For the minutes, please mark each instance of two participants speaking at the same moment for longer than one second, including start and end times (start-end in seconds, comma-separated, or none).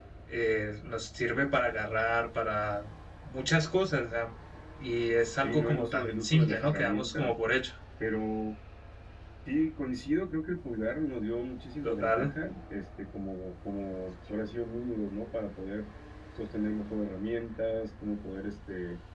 5.4-7.3